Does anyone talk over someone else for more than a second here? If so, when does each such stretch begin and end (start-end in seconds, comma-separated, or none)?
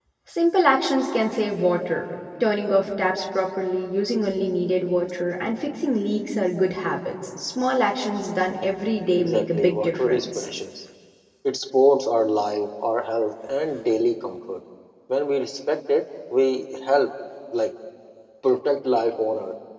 9.2-10.5